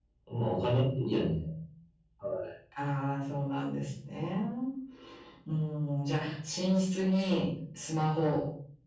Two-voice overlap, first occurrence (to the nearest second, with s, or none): none